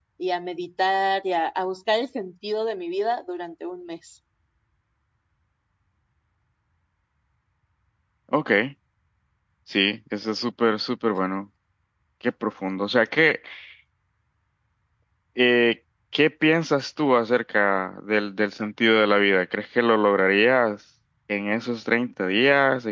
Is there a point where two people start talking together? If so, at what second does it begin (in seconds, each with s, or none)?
none